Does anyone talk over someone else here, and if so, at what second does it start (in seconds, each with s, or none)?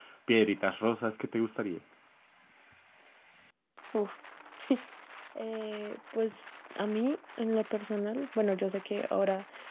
none